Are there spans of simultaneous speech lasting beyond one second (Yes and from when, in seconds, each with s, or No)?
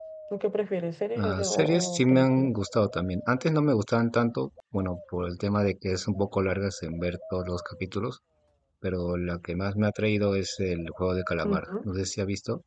Yes, from 1.2 s